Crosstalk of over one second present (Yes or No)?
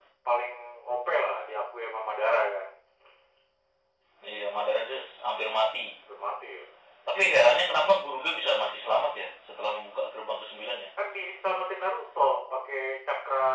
No